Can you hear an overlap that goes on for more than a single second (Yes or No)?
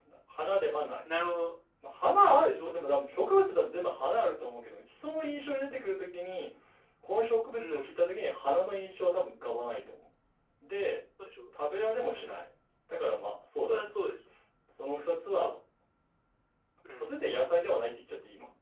No